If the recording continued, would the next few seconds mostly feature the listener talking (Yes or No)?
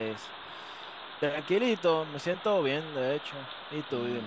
Yes